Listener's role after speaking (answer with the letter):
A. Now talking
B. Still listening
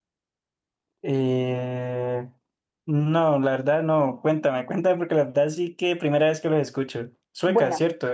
A